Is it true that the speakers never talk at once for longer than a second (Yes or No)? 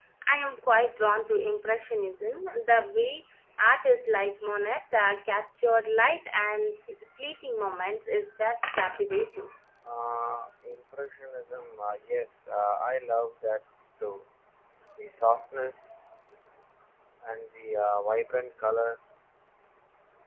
Yes